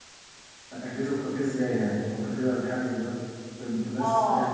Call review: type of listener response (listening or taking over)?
taking over